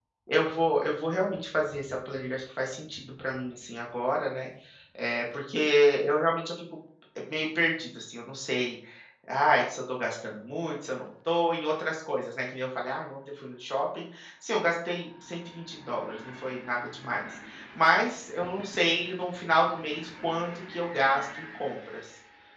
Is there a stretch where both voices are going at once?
No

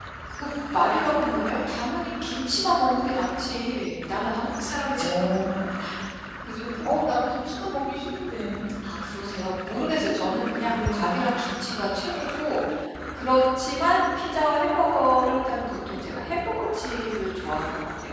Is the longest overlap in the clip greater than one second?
No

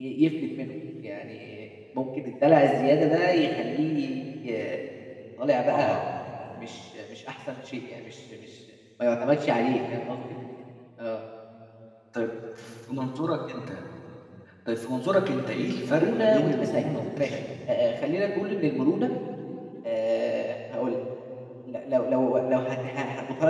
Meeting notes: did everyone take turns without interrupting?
No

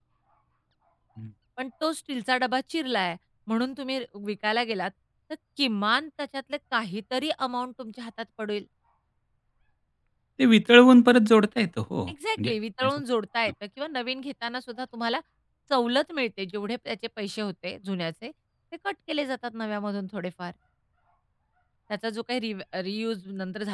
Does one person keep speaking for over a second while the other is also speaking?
No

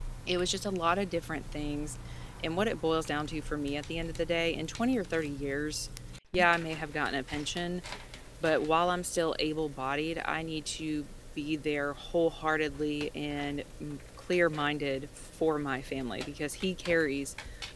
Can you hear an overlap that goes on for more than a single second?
No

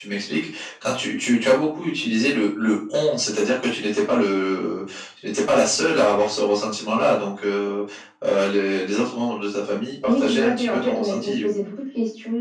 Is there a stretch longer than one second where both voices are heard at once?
Yes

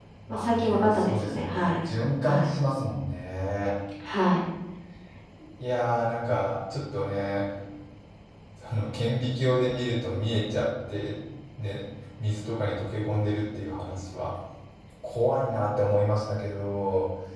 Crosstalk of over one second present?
Yes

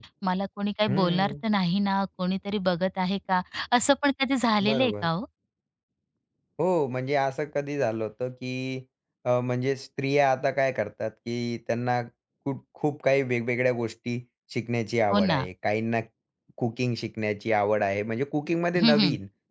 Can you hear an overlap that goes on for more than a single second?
No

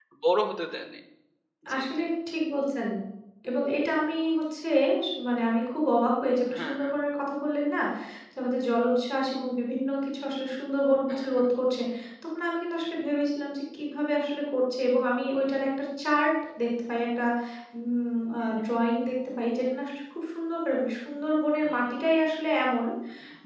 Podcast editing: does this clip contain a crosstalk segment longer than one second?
No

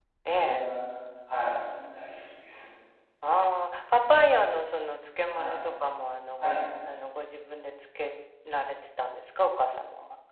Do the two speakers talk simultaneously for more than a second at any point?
No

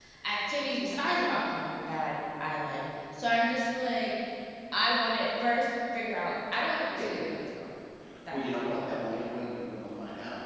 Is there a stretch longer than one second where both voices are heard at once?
No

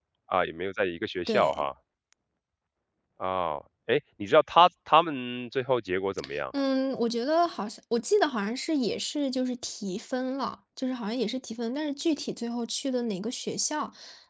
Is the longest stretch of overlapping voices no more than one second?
Yes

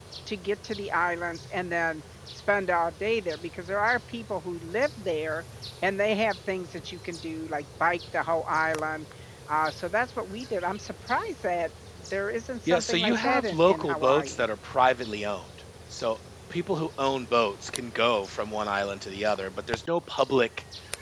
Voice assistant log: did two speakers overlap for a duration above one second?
Yes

